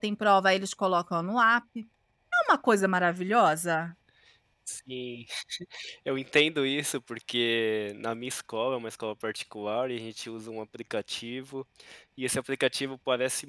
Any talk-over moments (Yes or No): No